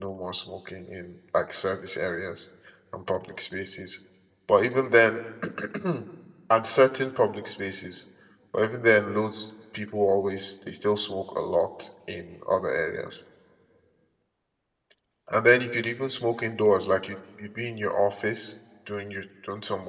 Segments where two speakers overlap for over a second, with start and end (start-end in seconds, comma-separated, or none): none